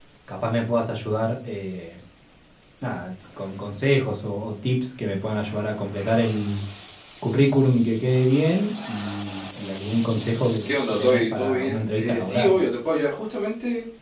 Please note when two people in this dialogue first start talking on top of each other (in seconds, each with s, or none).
10.9 s